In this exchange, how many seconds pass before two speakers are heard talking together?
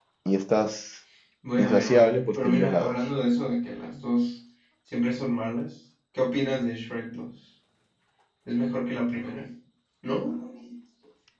1.6 s

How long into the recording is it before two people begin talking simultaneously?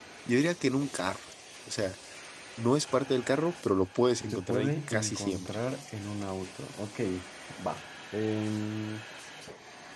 4.3 s

